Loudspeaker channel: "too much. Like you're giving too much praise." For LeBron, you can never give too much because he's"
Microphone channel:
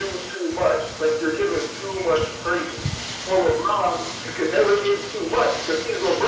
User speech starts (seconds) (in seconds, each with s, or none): none